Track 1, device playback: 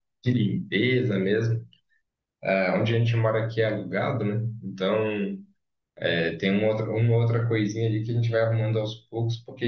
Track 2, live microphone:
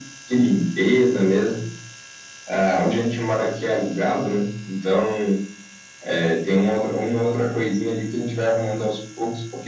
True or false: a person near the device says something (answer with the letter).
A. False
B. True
A